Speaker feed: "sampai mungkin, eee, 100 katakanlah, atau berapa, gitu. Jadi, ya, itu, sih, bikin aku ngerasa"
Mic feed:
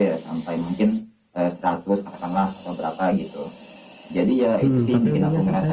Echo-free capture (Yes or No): No